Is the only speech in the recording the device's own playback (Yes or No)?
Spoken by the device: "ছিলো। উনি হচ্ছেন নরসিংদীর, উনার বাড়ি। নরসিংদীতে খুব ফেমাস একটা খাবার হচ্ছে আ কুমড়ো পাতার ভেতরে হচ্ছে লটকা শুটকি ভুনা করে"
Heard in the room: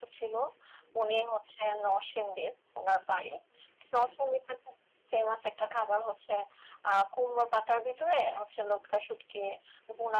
Yes